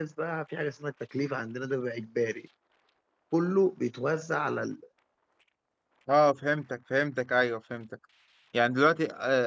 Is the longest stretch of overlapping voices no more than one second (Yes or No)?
Yes